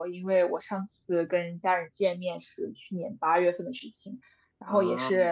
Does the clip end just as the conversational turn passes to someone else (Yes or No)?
No